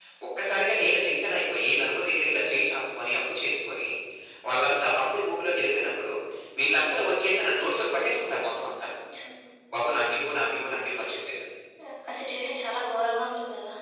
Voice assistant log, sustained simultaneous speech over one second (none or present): none